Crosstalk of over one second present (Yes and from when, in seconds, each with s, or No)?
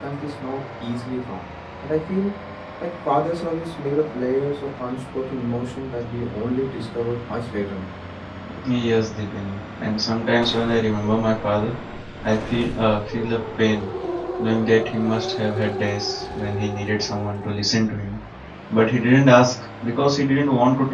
No